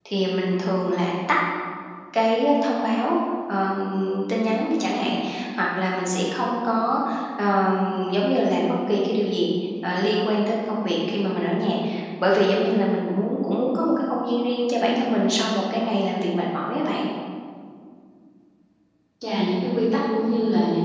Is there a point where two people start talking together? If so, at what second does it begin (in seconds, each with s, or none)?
none